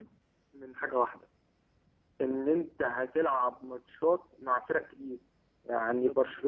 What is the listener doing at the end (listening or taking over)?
listening